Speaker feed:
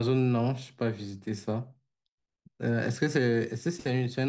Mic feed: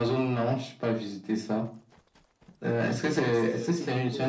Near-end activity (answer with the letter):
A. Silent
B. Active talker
B